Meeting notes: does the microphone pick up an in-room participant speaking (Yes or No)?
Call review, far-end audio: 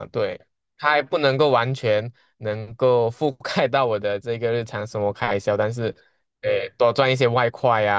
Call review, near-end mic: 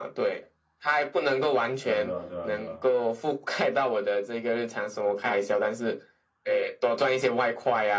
Yes